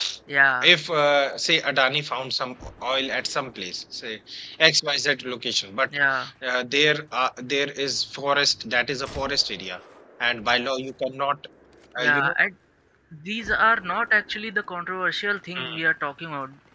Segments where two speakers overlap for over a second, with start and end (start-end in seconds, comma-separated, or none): none